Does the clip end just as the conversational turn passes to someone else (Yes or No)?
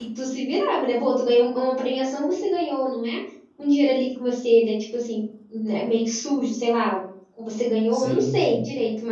No